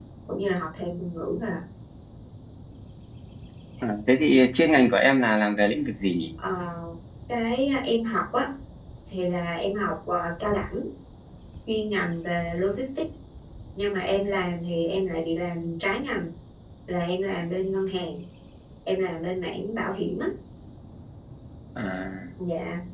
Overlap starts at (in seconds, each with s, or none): none